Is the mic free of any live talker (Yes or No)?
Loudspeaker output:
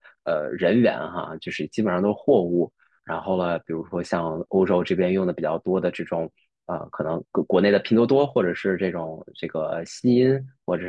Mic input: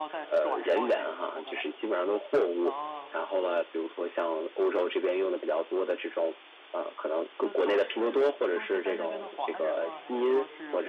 No